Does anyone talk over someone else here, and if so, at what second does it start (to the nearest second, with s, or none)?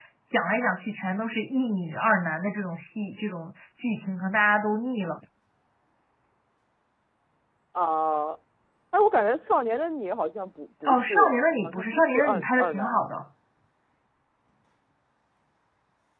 11 s